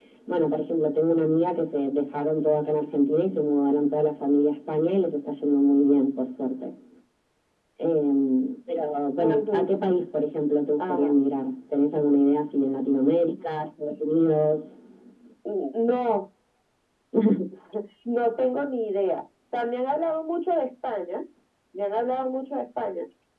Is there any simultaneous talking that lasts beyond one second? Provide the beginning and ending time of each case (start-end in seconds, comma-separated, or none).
none